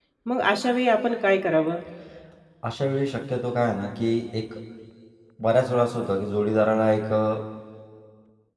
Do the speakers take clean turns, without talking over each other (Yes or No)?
Yes